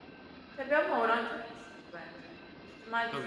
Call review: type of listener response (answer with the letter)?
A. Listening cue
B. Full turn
B